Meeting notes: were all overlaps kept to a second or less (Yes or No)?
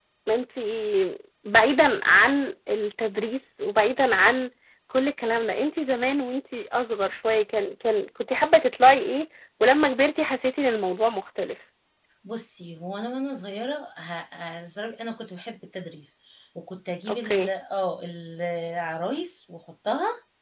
Yes